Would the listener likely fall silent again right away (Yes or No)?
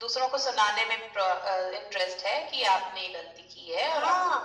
No